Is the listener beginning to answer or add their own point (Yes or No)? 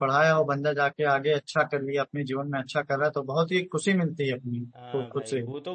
Yes